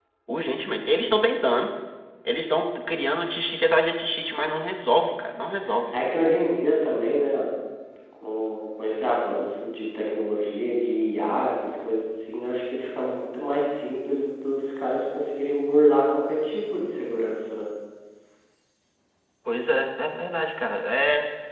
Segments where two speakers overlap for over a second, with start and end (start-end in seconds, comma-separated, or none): none